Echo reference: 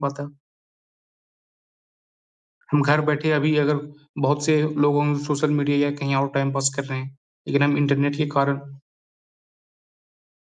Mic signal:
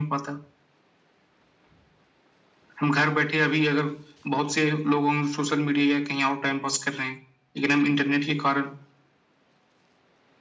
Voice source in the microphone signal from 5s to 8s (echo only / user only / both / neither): echo only